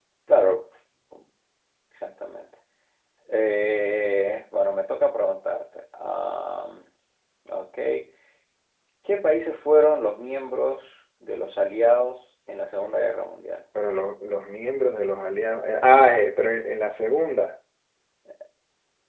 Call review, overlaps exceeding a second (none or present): none